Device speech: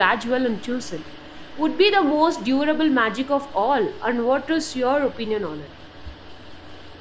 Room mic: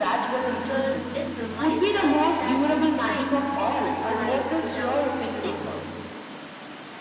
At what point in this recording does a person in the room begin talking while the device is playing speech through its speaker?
0.5 s

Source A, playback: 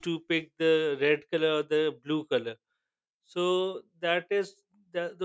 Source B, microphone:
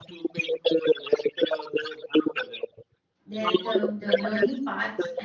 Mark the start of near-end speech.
3.2 s

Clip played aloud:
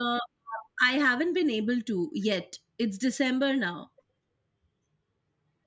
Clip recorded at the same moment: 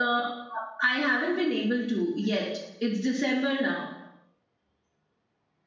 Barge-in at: none

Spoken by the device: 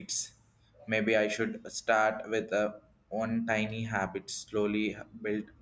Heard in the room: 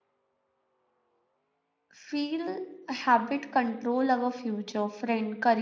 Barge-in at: 1.9 s

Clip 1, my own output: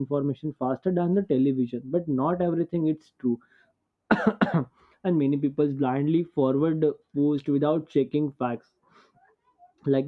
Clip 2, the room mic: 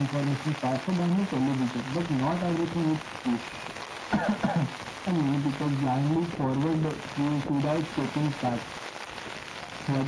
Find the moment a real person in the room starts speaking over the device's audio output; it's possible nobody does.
none

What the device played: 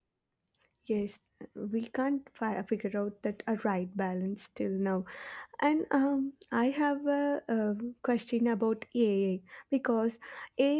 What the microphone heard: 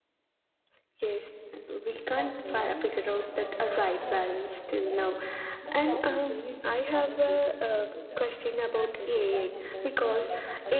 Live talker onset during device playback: 2.2 s

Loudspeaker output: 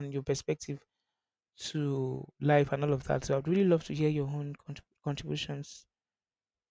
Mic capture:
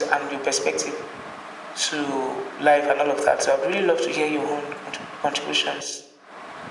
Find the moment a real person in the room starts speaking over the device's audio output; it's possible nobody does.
none

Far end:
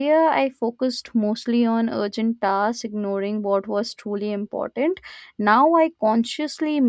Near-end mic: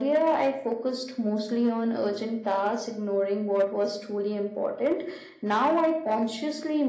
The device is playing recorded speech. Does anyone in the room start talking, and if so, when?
none

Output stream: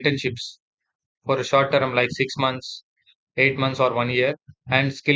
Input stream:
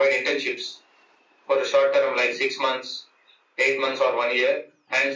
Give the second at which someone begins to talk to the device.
none

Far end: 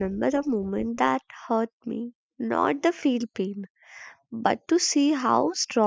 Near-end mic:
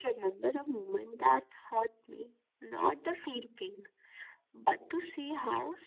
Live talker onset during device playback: none

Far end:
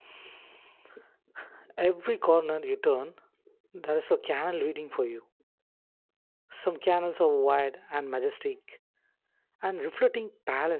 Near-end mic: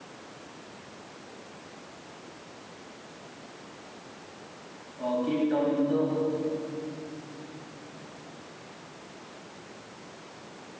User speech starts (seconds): 5.0 s

